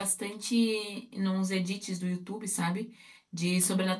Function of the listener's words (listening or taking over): listening